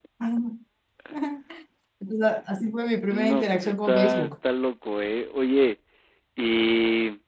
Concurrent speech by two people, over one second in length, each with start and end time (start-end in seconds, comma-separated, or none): 3.1-4.3